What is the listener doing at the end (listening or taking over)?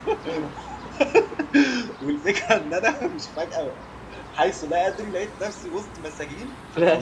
taking over